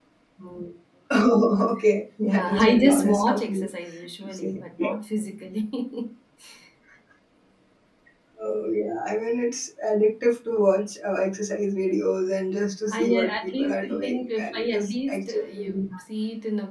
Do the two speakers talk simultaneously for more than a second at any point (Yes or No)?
Yes